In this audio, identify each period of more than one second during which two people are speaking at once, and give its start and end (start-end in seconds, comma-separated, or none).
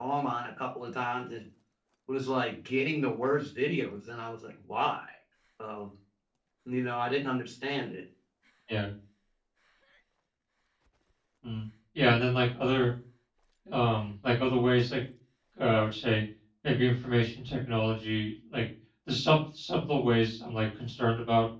none